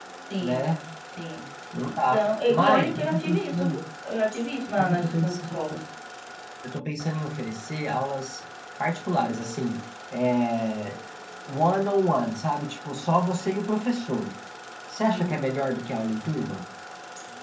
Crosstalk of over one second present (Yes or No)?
Yes